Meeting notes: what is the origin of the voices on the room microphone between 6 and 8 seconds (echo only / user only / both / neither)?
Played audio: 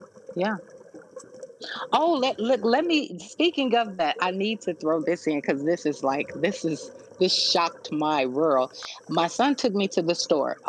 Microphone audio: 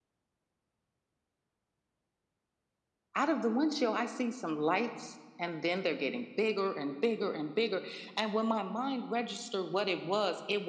user only